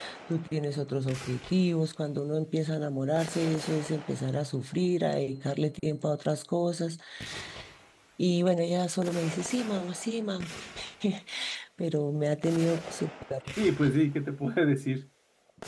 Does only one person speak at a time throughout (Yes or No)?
Yes